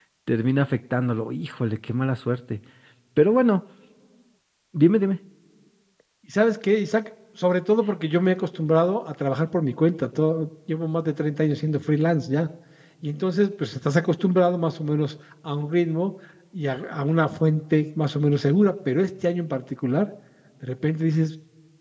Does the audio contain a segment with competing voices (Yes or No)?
No